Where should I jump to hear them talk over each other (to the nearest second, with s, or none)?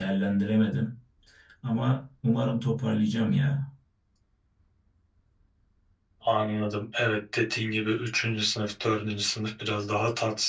none